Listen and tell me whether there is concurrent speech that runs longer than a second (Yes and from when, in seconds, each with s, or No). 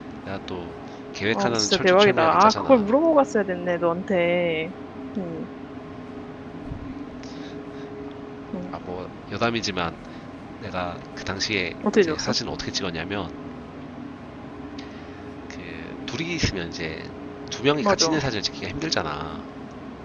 Yes, from 1.3 s